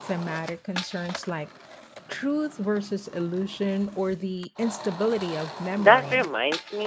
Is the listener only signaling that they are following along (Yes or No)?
No